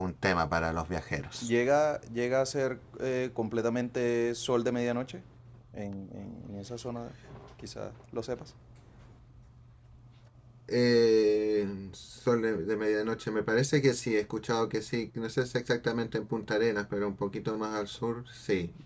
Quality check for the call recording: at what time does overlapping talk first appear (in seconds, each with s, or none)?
none